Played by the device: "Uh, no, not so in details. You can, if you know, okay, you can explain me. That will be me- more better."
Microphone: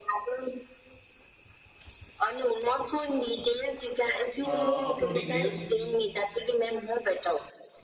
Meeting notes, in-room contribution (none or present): present